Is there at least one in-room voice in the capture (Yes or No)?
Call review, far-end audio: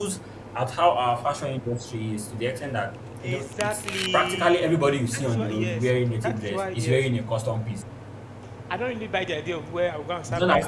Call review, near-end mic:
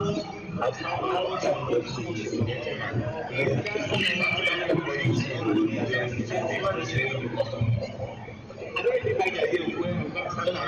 Yes